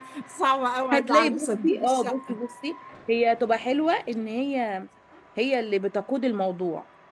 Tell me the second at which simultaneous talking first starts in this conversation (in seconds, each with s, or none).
0.9 s